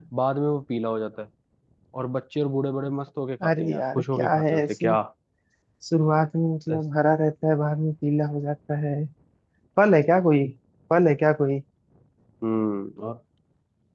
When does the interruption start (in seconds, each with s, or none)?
3.4 s